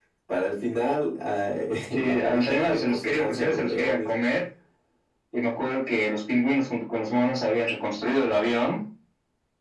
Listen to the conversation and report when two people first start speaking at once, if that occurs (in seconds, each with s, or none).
1.9 s